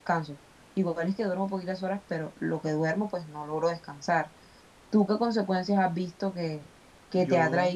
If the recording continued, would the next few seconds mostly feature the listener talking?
No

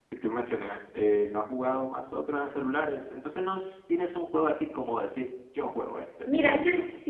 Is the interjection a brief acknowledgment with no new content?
No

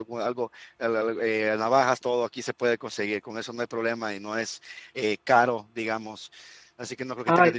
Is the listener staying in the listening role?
Yes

